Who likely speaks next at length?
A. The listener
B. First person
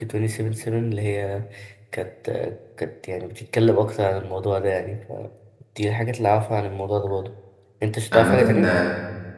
A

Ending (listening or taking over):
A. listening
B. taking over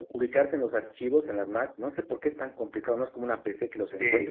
B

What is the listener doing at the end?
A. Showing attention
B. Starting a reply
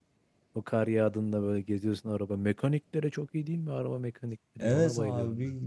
B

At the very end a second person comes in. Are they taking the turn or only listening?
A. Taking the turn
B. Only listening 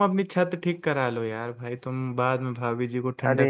A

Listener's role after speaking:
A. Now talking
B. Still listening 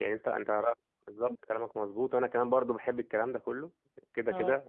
B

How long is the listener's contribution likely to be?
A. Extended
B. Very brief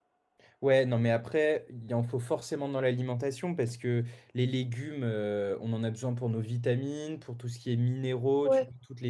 B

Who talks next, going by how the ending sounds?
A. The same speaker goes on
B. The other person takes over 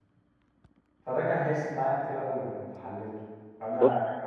A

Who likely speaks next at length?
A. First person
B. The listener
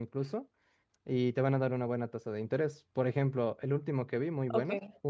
A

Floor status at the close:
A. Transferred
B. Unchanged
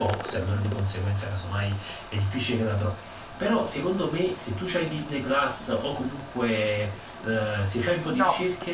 B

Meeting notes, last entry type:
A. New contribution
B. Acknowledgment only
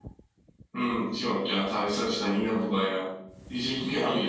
B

